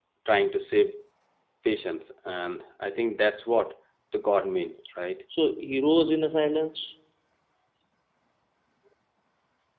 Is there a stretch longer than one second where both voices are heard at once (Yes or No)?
No